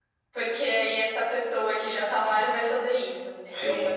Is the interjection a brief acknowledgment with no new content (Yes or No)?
No